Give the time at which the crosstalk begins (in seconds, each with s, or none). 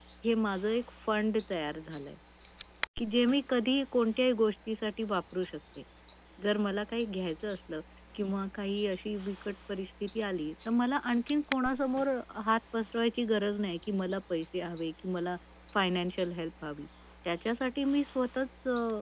none